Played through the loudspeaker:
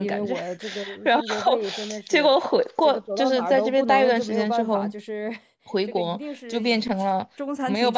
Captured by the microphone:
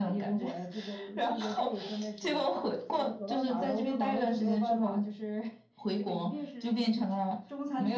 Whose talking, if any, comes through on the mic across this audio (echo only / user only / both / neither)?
echo only